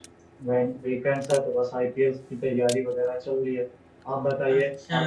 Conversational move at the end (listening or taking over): taking over